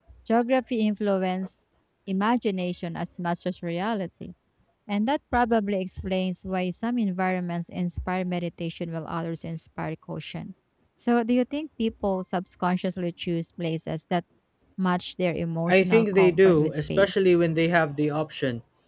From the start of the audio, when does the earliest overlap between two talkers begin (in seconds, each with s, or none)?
15.7 s